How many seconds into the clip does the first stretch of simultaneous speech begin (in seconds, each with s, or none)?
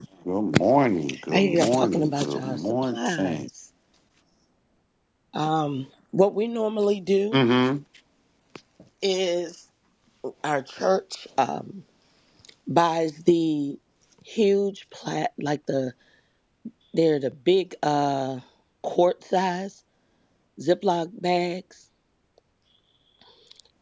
1.1 s